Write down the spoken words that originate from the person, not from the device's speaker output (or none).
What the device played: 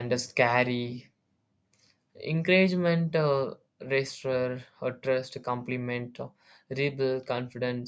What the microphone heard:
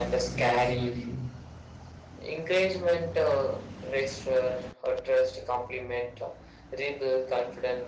gradually